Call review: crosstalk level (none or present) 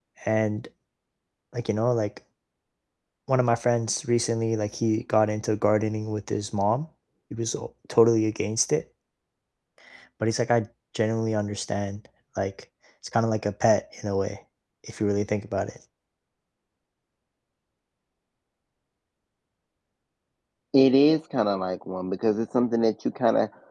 none